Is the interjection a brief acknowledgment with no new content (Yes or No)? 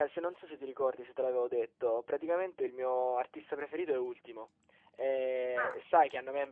Yes